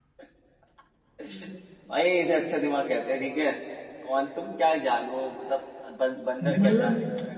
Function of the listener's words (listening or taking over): taking over